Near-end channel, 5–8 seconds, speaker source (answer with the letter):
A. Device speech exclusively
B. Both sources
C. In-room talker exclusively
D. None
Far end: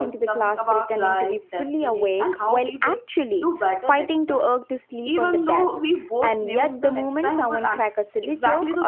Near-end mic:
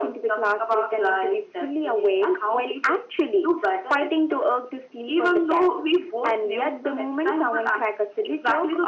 A